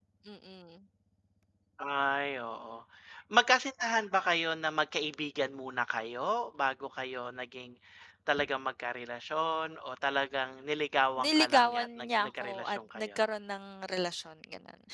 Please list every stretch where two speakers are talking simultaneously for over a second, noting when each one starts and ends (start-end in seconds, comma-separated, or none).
11.2-13.2